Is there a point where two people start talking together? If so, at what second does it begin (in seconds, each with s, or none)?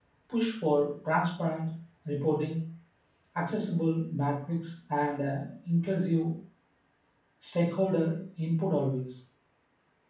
none